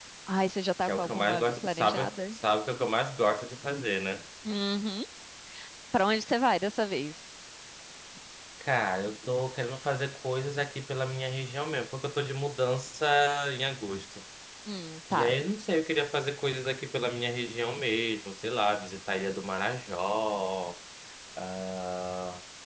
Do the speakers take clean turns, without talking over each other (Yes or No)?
No